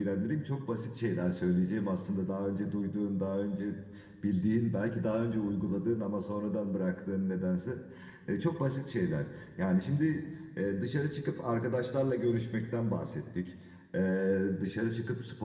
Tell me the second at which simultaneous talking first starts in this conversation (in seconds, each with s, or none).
none